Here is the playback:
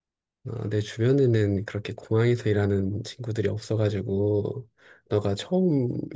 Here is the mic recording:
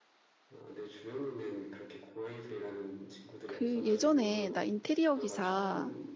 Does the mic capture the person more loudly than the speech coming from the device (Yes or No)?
Yes